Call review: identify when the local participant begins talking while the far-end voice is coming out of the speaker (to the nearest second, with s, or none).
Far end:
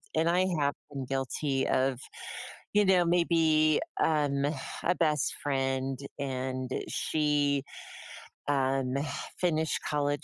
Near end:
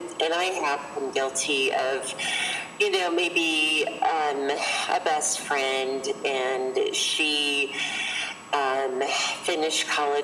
none